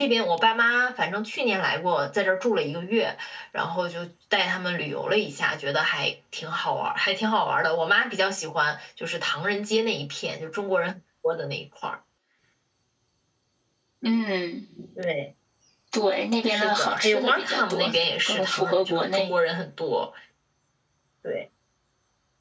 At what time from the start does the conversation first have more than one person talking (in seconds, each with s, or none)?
16.5 s